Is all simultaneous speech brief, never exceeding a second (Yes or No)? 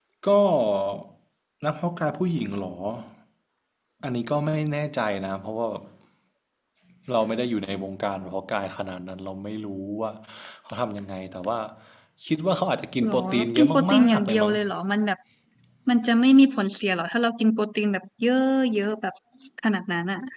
No